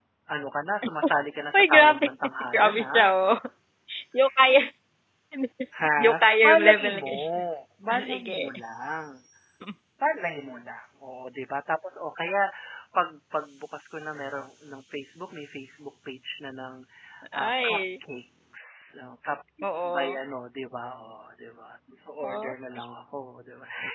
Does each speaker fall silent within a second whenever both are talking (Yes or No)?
No